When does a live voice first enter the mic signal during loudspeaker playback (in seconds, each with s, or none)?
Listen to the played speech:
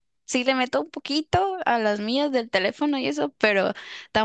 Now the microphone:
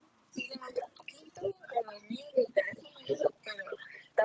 none